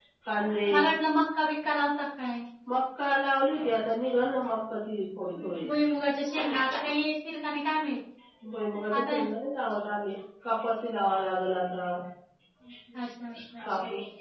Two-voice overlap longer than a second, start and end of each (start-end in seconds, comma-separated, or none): none